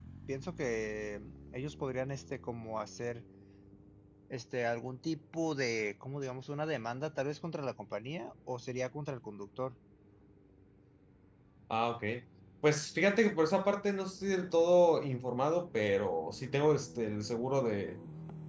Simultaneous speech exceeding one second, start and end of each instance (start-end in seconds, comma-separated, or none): none